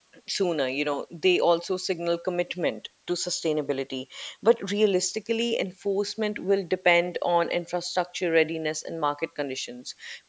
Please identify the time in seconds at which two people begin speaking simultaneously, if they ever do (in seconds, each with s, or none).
none